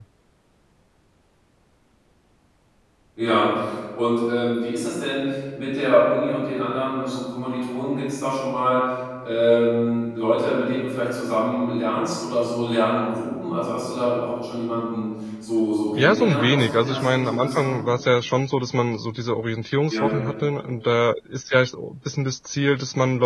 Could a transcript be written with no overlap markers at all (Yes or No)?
No